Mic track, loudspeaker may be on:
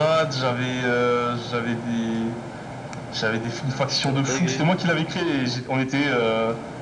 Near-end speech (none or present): present